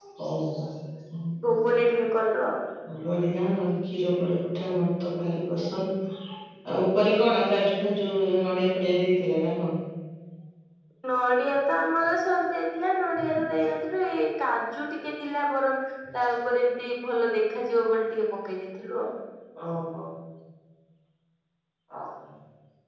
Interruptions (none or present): none